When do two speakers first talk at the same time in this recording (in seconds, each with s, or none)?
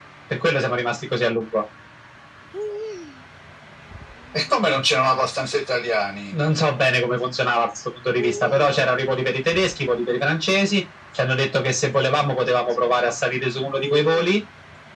none